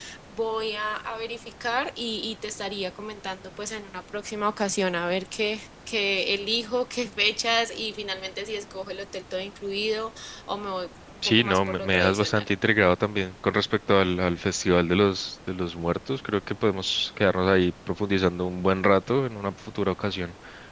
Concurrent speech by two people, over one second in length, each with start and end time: 11.2-12.4

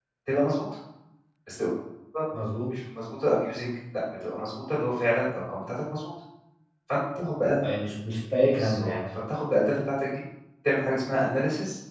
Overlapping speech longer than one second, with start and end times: none

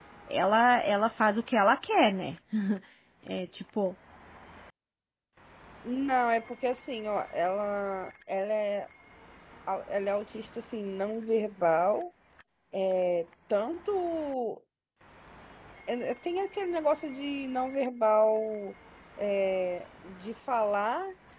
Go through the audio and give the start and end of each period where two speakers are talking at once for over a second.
none

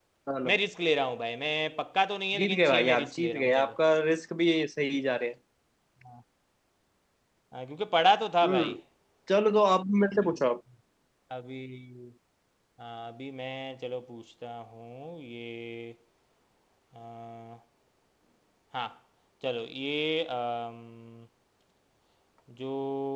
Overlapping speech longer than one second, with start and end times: 2.4-3.7

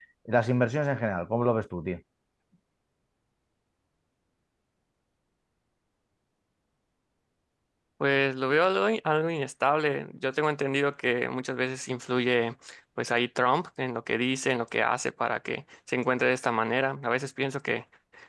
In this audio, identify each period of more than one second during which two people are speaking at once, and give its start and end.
none

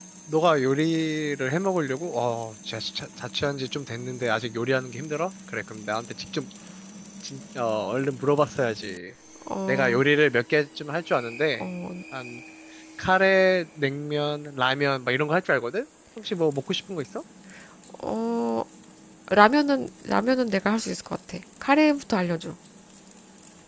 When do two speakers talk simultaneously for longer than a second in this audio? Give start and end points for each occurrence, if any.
none

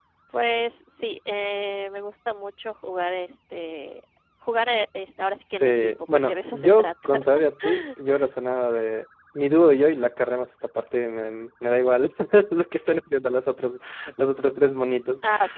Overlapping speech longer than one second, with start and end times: 5.6-7.2

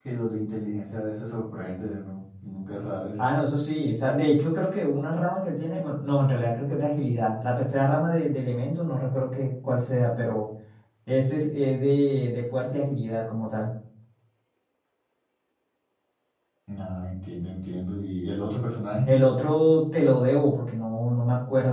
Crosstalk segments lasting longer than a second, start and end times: none

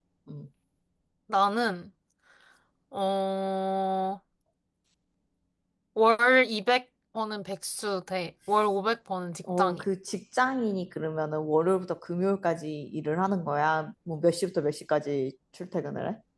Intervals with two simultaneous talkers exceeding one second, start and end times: none

